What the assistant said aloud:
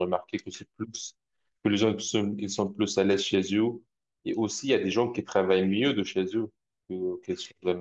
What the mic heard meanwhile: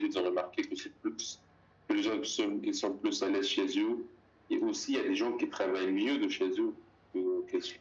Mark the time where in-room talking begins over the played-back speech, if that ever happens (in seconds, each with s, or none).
none